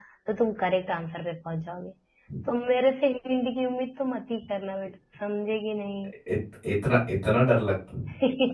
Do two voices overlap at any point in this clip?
No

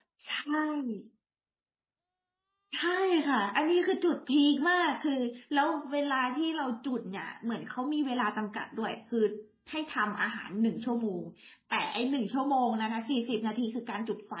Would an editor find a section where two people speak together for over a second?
No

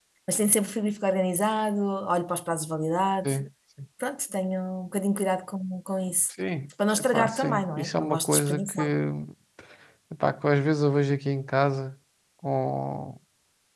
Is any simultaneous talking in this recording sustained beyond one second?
Yes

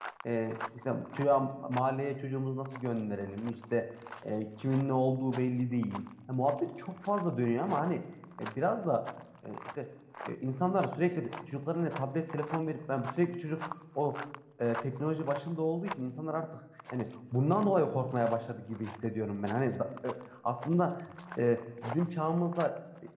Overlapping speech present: No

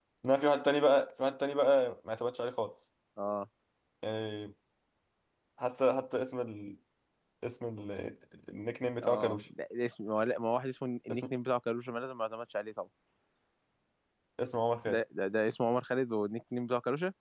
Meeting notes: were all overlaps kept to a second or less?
Yes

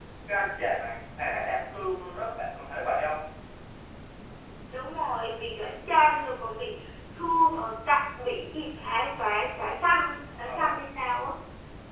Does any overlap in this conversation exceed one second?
No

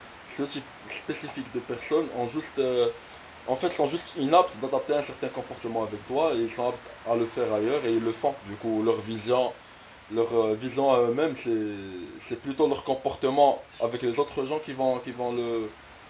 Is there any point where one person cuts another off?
No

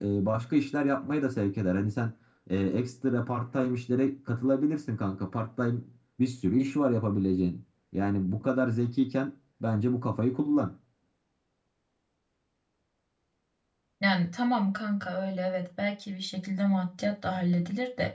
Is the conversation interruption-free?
Yes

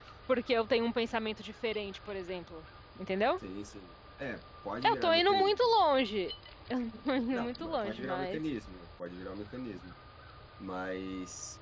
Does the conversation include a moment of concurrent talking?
Yes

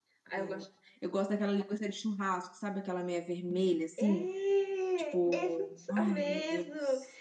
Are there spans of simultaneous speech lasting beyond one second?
Yes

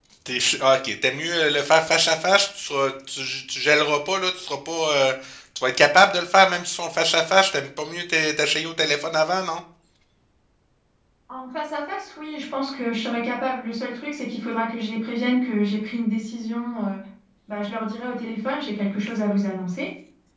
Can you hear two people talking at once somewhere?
No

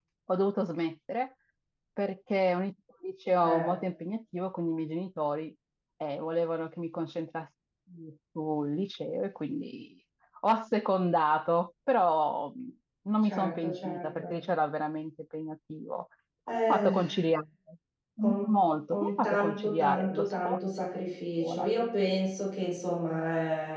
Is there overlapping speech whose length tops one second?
Yes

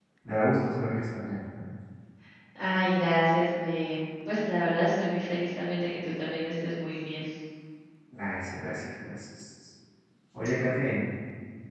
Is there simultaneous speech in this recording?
No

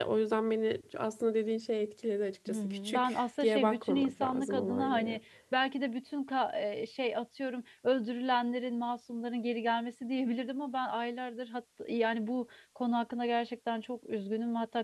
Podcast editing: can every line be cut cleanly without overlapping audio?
No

